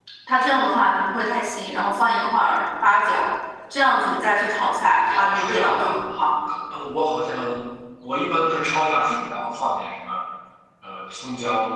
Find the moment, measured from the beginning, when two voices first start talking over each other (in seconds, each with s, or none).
5.0 s